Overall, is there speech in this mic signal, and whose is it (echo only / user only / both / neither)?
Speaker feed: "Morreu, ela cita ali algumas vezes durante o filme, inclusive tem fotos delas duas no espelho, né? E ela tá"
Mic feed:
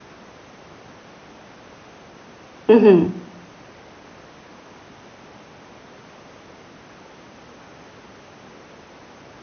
user only